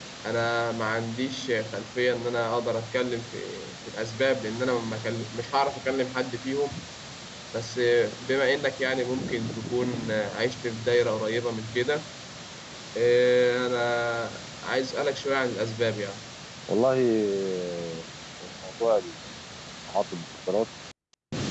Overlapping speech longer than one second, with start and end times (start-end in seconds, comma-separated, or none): none